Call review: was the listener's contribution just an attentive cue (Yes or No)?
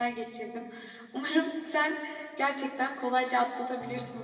Yes